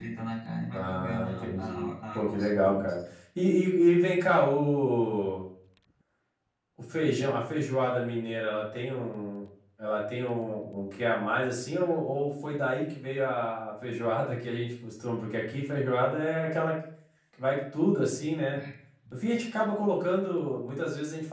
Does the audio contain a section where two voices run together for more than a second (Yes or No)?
Yes